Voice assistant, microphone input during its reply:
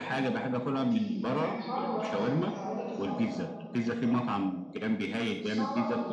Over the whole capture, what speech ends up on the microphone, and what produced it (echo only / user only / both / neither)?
both